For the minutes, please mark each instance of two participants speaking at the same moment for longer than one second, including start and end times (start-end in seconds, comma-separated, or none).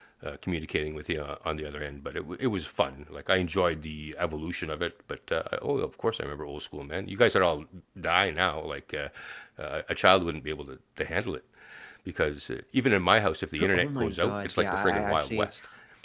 13.7-15.5